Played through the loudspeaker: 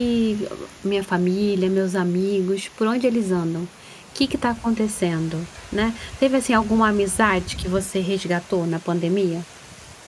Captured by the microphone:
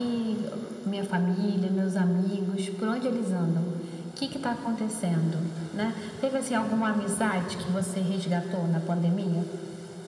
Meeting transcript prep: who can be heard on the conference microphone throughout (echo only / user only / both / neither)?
echo only